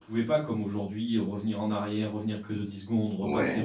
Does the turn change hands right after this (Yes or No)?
No